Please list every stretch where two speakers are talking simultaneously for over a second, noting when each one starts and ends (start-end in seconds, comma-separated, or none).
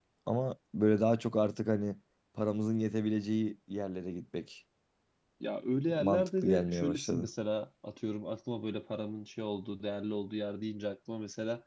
6.0-7.3